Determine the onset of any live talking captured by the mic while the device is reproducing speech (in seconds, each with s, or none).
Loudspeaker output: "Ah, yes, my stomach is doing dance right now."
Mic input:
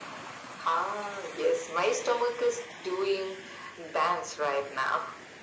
none